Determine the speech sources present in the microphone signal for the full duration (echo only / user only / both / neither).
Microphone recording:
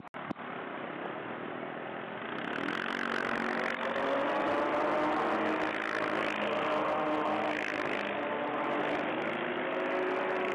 neither